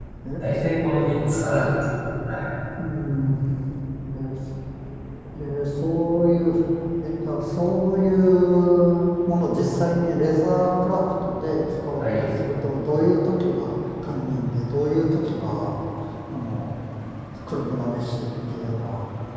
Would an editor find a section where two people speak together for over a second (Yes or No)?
Yes